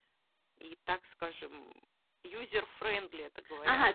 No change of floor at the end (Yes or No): No